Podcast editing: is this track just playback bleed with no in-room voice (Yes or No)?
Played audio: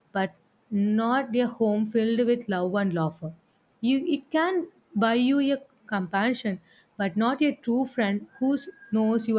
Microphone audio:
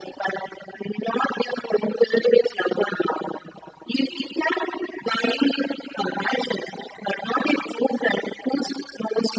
Yes